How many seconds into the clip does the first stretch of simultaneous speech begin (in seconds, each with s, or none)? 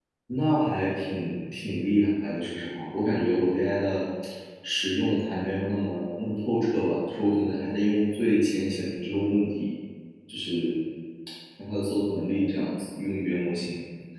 none